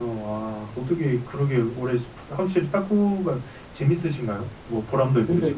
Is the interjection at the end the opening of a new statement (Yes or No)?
Yes